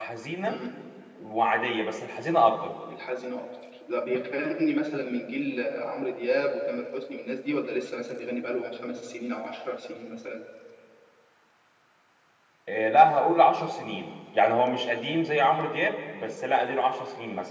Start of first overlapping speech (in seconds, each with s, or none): none